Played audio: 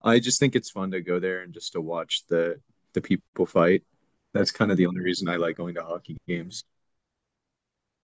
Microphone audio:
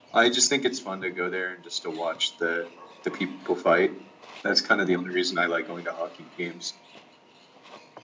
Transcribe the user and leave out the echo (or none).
none